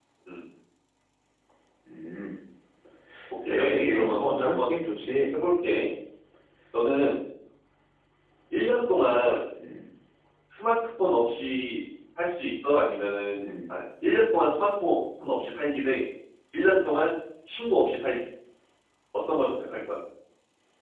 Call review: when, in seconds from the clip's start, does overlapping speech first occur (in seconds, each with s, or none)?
3.5 s